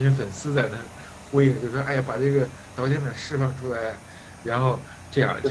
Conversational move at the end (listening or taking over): listening